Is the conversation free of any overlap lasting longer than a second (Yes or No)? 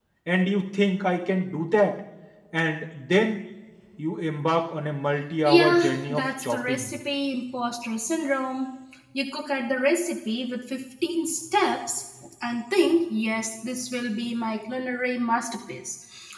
No